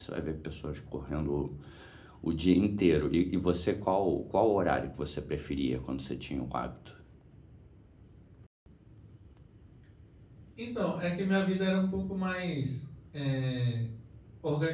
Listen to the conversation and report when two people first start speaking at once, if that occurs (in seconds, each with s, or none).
none